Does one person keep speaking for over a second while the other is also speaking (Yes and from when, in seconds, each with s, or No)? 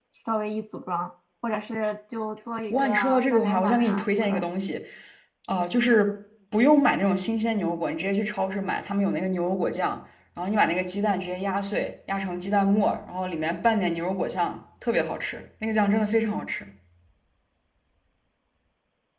Yes, from 2.7 s